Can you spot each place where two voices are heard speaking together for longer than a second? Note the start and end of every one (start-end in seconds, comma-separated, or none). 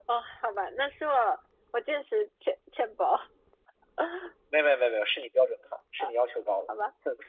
none